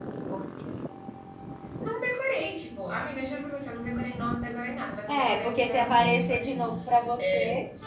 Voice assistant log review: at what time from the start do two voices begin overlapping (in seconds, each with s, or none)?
5.1 s